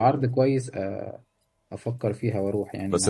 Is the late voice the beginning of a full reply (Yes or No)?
Yes